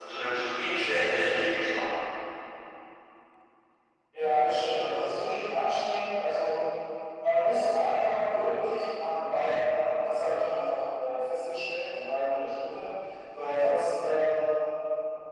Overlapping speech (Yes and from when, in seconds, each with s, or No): No